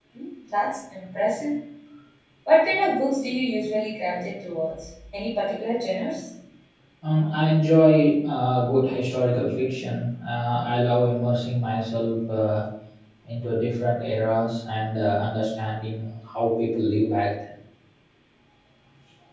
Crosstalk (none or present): none